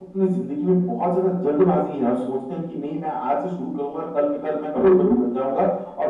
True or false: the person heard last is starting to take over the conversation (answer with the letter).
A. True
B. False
B